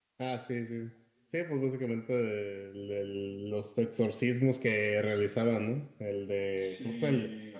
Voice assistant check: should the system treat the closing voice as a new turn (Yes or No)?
No